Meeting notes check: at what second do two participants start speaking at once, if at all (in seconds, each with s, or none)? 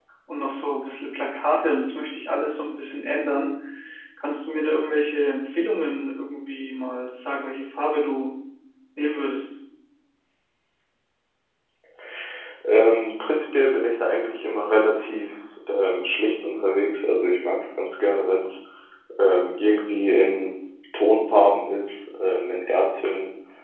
none